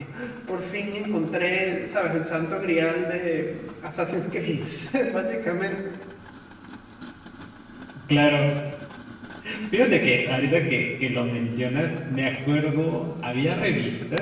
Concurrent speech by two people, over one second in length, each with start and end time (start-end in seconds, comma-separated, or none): none